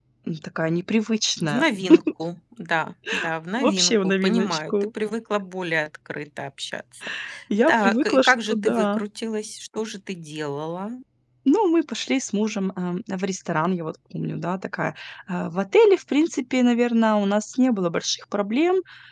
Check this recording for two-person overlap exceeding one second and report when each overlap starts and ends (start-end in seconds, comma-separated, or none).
3.6-4.9, 7.7-9.0